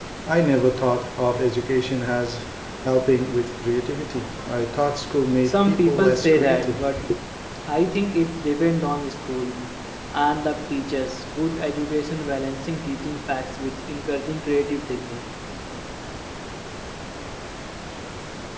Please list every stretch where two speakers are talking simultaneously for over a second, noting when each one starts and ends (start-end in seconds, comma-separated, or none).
5.4-7.1